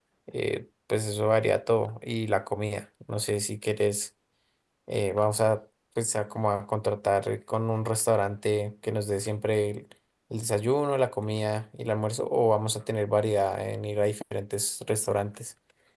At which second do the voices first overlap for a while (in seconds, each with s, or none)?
none